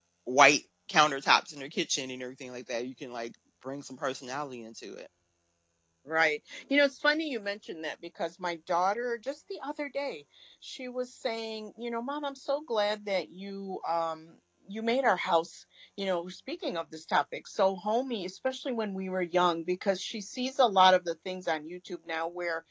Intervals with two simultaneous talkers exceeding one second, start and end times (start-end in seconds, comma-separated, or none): none